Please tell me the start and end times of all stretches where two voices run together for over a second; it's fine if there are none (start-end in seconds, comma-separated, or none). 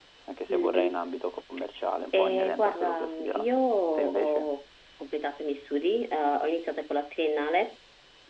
2.1-3.5